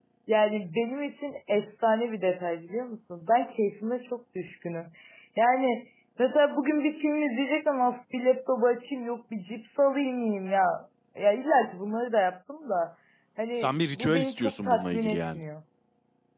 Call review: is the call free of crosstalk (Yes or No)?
No